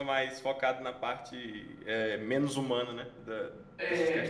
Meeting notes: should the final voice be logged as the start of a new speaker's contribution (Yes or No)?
Yes